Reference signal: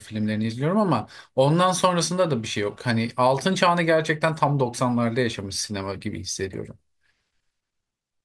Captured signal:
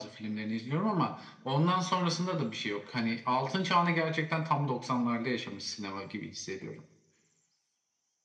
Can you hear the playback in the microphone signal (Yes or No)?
Yes